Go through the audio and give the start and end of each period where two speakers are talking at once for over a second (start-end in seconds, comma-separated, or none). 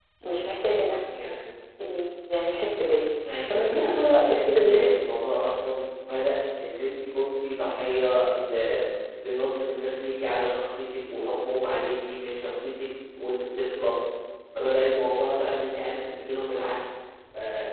3.5-4.9